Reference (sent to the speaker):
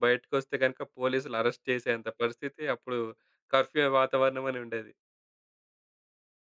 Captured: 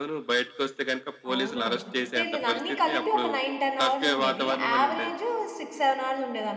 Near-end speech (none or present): present